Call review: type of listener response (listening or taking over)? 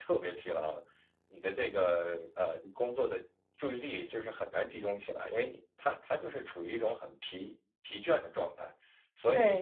taking over